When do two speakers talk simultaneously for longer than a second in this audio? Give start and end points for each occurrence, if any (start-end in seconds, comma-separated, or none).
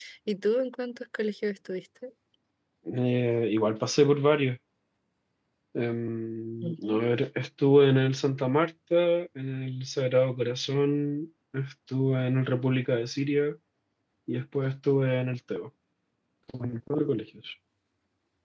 none